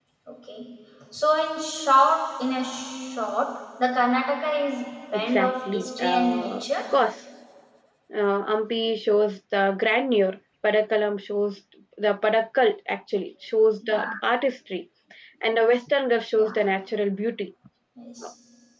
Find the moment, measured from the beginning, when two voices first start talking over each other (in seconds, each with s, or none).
5.1 s